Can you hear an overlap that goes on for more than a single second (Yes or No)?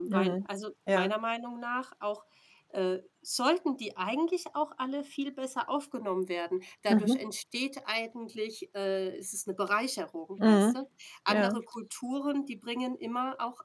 No